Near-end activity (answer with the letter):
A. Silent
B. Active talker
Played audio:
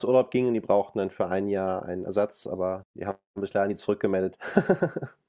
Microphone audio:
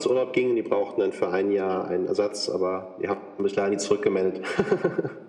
A